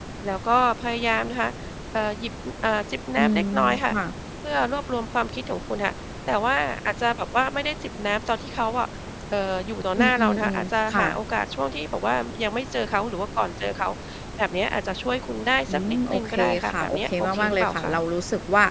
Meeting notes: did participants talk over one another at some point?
Yes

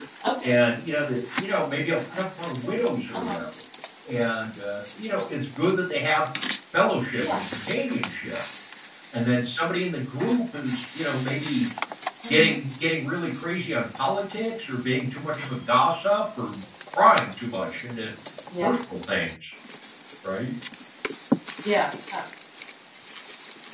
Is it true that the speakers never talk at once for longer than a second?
Yes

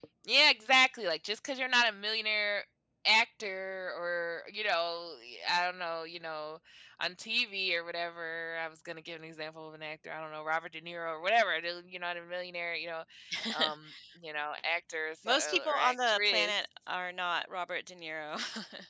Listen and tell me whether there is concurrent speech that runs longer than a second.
Yes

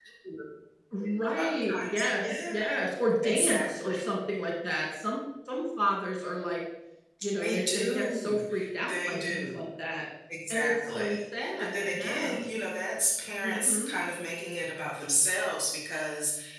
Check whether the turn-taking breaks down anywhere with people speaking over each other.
Yes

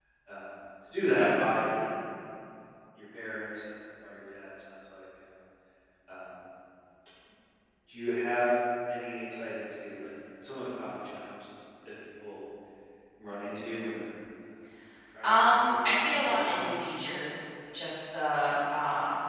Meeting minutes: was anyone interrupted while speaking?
Yes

